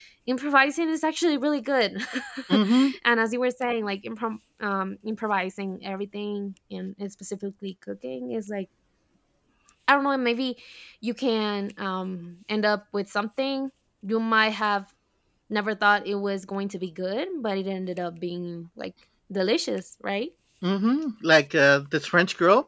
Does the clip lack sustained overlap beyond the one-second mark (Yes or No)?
Yes